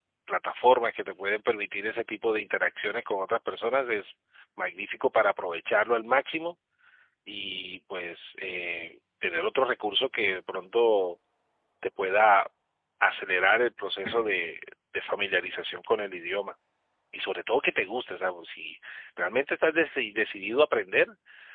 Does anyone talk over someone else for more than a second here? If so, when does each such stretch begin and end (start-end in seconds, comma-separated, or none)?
none